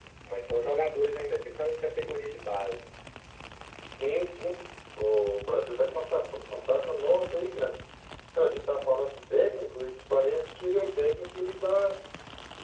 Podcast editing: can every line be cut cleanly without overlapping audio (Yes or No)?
Yes